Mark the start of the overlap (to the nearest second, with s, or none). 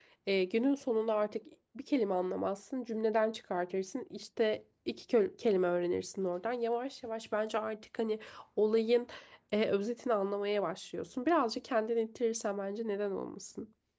none